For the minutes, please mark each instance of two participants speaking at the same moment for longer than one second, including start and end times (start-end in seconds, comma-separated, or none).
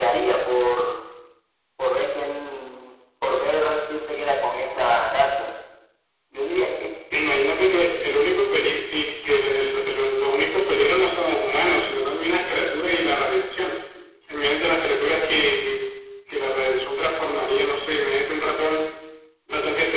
none